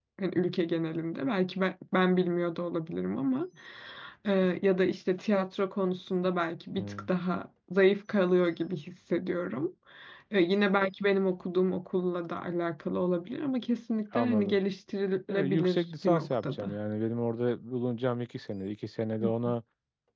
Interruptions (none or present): present